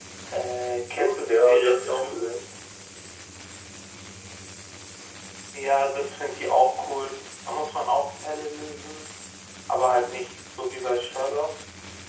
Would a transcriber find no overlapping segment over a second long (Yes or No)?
No